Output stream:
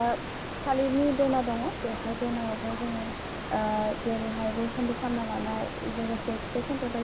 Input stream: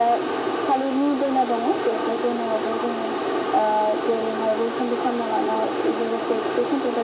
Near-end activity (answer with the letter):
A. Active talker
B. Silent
B